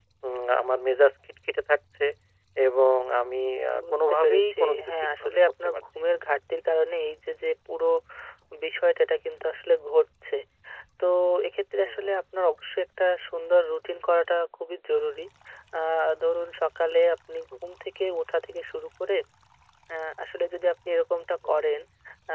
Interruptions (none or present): present